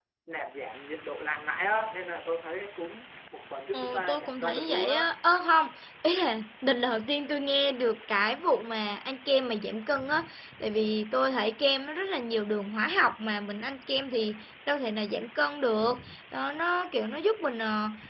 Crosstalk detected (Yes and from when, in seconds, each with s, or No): Yes, from 3.7 s